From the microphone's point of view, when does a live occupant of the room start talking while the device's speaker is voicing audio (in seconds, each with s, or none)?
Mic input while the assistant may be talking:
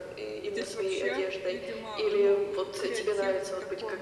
0.5 s